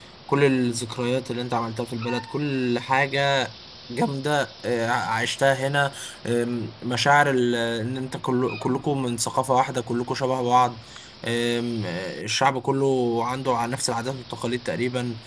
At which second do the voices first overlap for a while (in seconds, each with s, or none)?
none